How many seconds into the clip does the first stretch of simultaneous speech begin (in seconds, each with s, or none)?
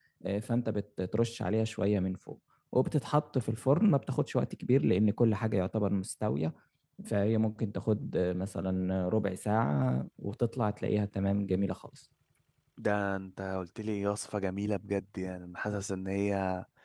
none